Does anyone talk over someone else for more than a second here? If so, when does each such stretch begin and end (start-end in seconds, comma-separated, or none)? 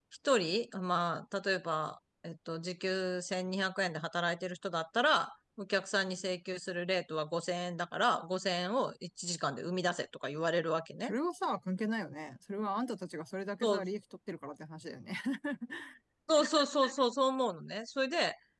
none